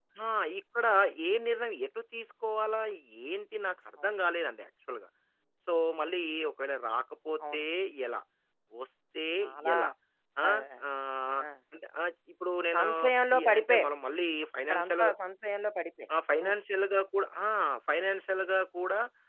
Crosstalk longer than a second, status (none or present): none